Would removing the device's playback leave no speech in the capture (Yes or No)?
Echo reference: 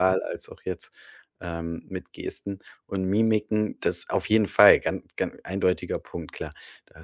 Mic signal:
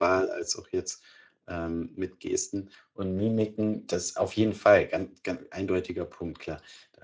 Yes